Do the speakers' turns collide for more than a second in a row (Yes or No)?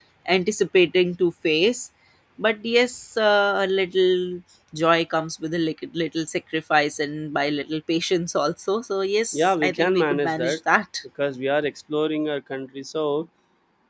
Yes